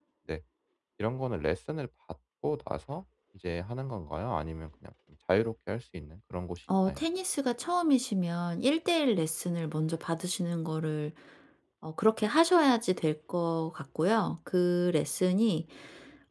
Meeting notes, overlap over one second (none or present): none